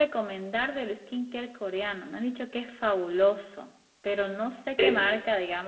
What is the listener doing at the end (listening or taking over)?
listening